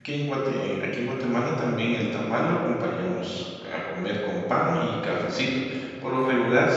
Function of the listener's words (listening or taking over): listening